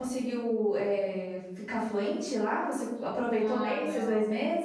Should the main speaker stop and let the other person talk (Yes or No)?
Yes